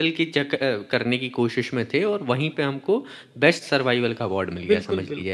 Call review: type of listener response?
taking over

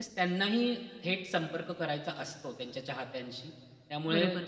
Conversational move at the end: taking over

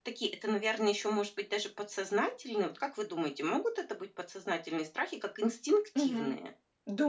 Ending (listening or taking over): taking over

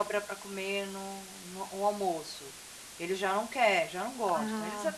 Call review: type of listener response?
listening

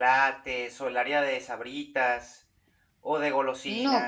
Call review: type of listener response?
taking over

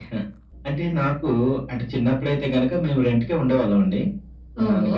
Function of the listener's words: listening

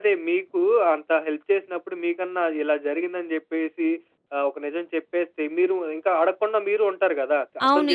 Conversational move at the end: taking over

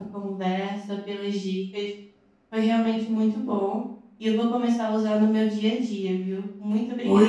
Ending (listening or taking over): taking over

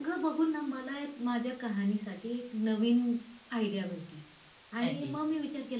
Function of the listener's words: listening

